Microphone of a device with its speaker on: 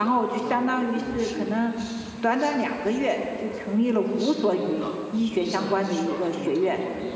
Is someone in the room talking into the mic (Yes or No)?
Yes